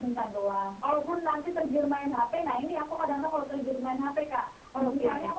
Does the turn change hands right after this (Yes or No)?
No